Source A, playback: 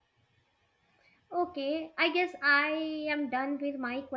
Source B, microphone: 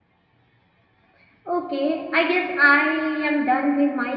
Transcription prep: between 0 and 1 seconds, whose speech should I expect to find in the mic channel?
neither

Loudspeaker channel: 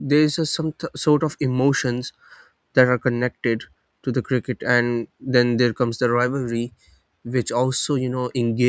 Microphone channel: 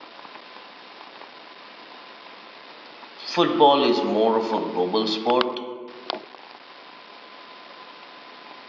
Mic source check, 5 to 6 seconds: user only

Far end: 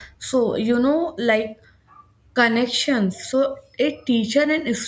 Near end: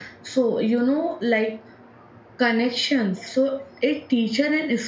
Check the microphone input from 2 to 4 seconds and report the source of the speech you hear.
echo only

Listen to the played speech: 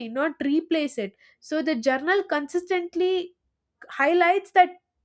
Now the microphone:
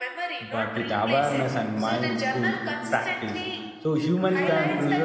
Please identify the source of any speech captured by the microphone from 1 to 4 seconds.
both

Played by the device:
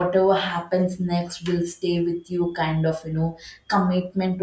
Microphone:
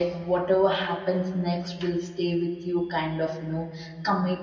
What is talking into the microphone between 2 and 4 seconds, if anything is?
echo only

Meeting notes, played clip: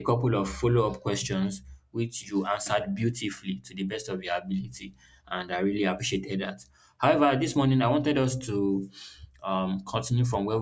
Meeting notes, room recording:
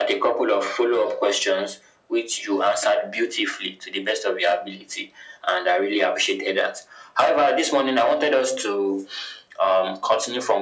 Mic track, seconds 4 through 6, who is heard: echo only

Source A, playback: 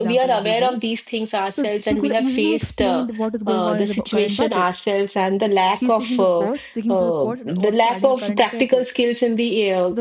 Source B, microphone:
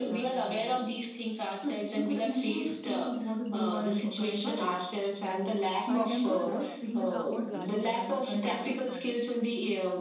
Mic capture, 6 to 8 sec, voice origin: both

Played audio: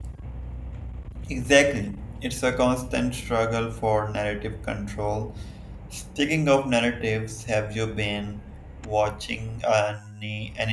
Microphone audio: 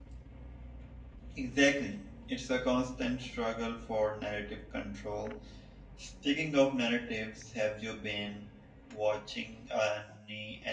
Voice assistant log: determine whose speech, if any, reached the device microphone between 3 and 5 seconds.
echo only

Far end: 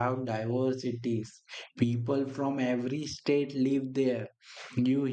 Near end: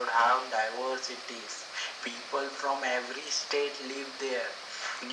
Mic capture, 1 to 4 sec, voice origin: echo only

